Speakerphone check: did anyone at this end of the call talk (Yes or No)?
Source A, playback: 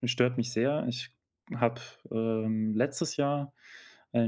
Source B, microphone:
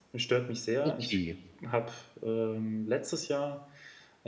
Yes